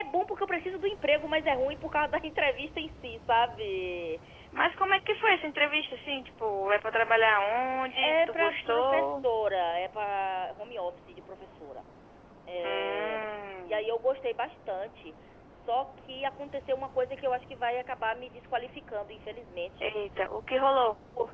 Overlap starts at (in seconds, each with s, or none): 8.0 s